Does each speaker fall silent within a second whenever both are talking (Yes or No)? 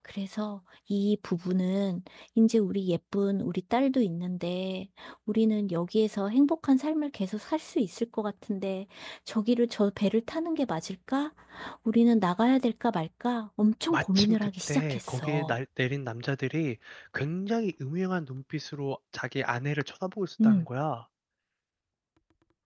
No